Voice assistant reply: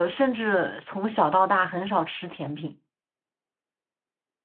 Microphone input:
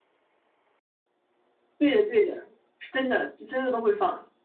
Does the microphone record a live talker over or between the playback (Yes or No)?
Yes